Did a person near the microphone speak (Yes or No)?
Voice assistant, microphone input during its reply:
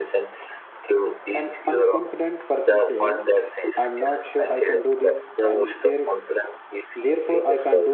Yes